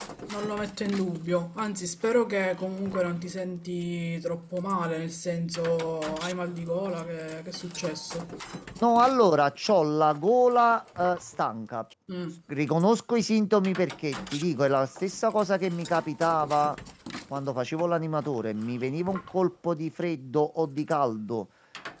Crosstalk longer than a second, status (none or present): none